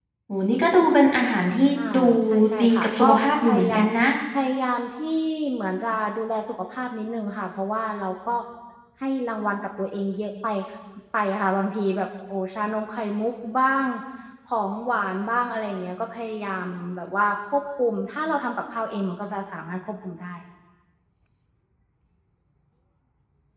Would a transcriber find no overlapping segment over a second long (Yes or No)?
No